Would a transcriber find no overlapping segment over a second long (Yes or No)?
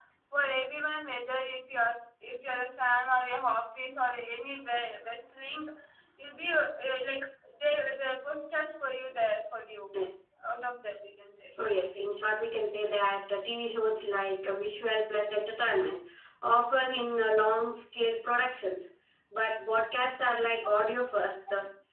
Yes